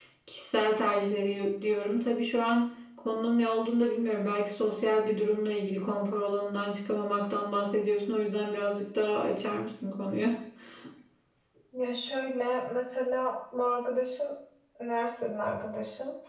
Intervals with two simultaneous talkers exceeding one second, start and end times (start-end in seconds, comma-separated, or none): none